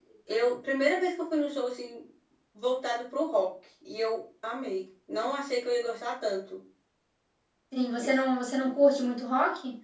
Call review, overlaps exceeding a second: none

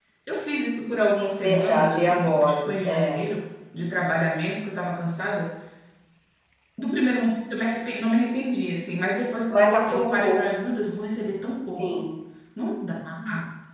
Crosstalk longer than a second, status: present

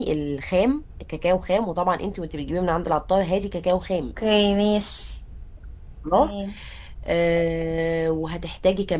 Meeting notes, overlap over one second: none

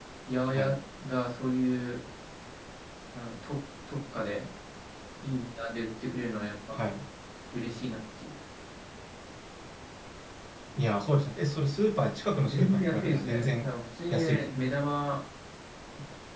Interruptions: present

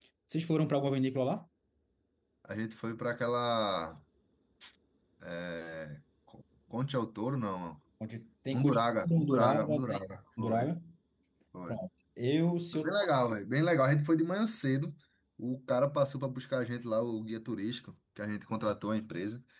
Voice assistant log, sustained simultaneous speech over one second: present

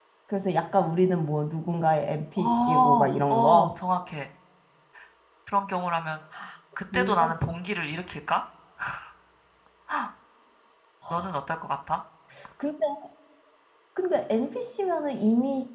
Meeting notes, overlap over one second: present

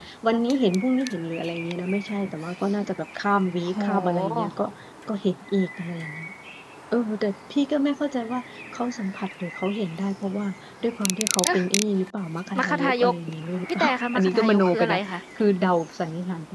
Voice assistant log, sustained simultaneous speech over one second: present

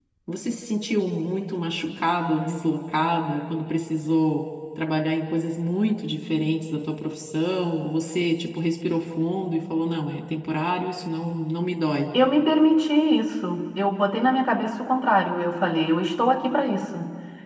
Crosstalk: none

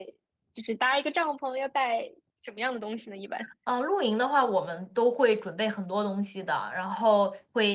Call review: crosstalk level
none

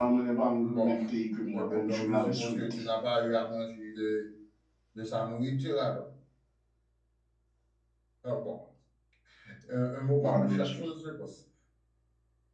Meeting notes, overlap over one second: present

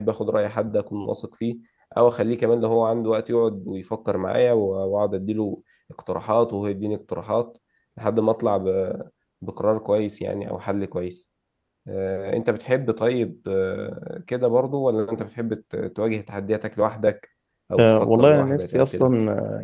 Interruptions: present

